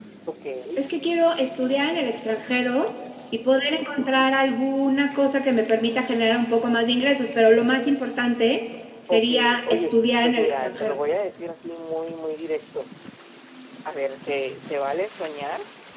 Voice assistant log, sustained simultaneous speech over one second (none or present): present